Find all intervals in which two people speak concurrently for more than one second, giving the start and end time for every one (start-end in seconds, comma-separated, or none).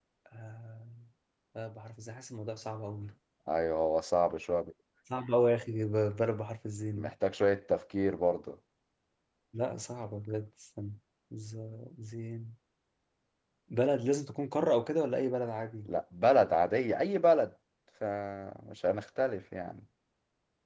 none